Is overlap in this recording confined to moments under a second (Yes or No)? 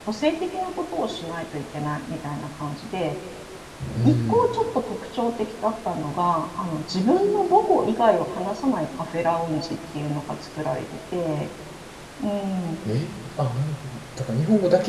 Yes